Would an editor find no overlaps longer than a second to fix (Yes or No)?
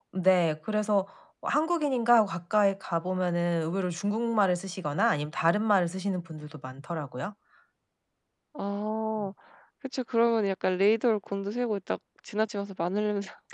Yes